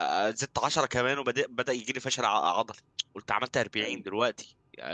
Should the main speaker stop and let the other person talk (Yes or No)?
No